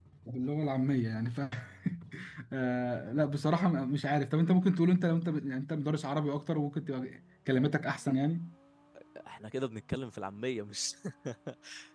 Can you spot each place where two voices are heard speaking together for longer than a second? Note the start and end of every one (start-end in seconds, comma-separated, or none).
none